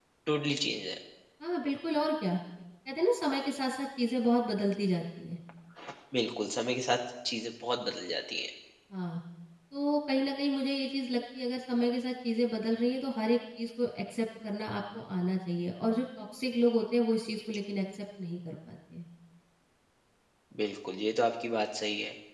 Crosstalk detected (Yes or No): No